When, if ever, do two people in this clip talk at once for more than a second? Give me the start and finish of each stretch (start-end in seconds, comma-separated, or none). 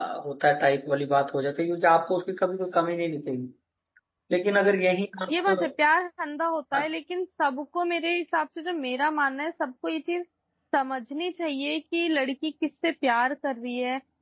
none